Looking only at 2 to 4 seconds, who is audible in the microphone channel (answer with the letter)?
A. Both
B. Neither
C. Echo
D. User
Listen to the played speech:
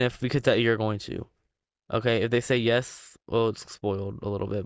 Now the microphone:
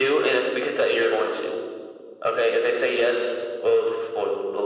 C